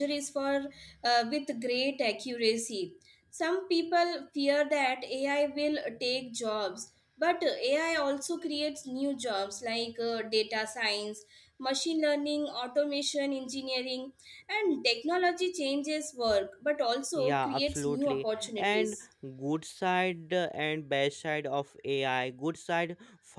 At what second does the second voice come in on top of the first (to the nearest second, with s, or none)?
17 s